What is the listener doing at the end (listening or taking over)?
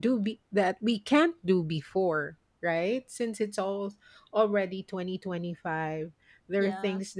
listening